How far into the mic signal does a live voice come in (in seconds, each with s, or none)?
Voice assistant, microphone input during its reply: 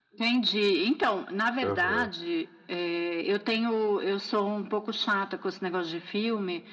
1.6 s